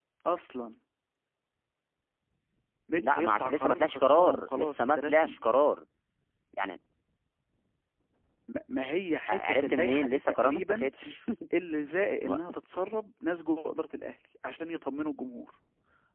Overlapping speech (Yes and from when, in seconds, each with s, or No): Yes, from 3.0 s